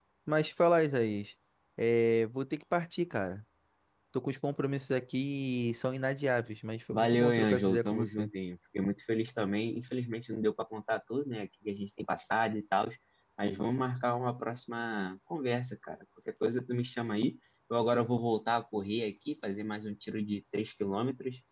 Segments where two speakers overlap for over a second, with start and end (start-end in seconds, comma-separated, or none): 6.9-8.3